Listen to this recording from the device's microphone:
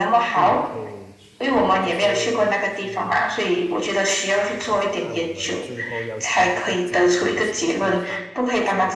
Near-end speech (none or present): present